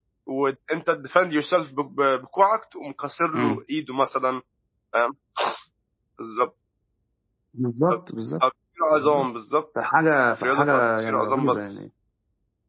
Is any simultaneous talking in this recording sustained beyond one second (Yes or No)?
Yes